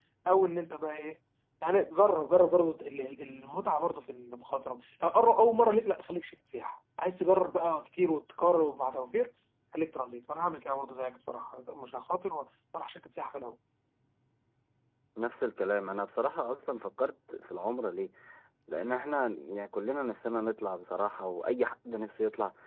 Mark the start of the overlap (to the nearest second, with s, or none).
none